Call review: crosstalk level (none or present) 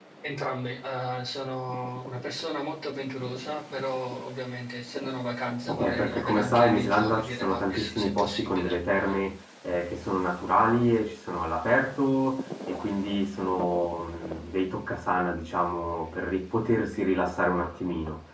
present